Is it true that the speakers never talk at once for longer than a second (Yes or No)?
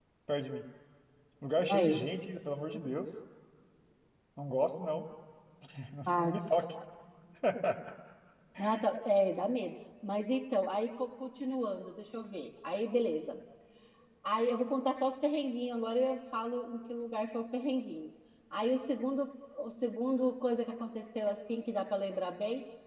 Yes